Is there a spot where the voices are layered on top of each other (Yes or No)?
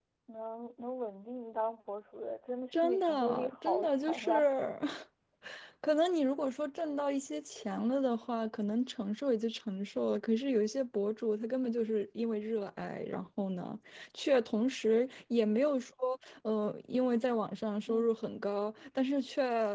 Yes